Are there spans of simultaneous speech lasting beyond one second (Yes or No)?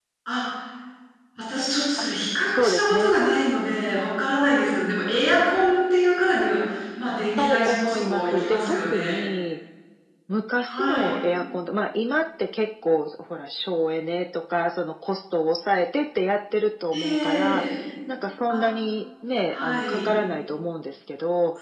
Yes